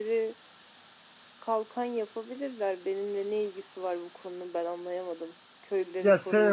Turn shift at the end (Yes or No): Yes